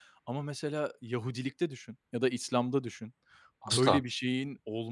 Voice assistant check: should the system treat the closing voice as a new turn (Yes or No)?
No